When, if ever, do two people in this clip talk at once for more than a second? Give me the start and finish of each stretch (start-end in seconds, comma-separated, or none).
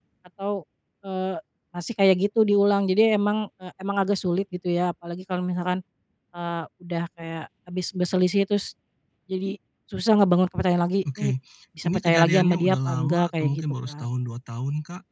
11.8-14.1